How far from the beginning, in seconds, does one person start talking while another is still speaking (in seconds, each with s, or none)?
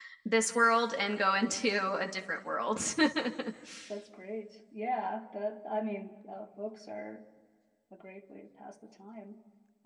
none